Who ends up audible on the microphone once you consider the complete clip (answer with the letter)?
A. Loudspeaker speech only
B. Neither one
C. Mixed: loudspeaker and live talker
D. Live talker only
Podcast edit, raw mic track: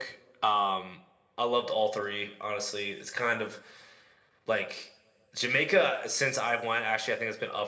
A